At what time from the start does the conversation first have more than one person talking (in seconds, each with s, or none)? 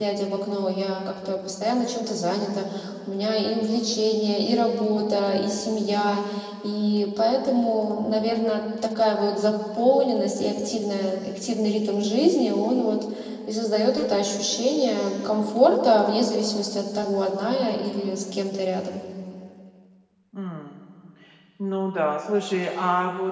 none